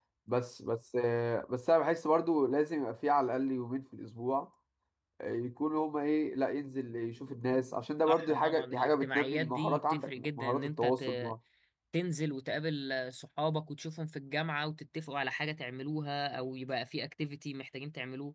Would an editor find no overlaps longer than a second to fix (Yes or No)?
No